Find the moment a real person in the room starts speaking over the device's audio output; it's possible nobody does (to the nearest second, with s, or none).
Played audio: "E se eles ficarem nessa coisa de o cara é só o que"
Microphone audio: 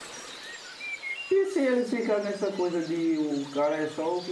none